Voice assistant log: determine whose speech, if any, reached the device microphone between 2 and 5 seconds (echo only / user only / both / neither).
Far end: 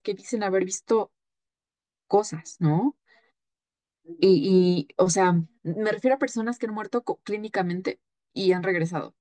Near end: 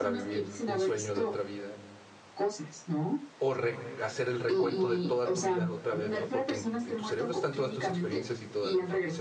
both